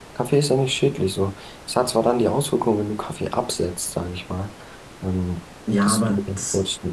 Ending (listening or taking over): taking over